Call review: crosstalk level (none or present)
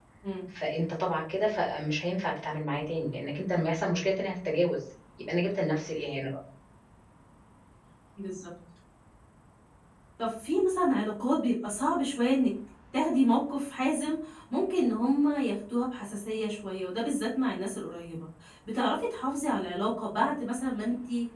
none